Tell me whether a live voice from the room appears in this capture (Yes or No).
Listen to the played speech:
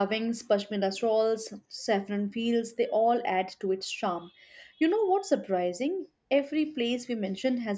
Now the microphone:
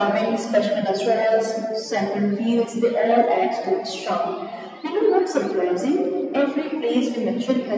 No